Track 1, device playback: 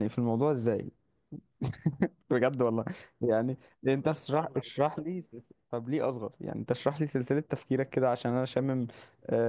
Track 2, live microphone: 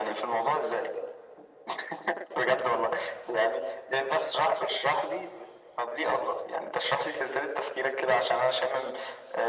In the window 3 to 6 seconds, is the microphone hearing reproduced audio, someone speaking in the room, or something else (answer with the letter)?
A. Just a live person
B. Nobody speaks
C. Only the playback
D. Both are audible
C